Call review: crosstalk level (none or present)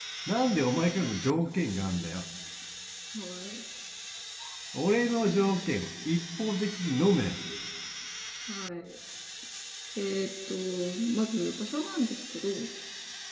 none